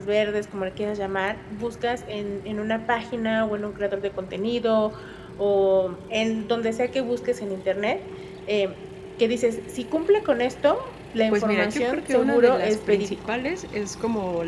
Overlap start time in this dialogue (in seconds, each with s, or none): 11.3 s